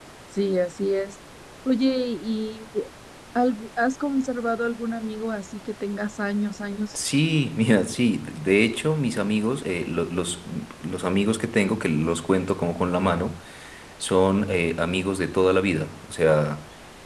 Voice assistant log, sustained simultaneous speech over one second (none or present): none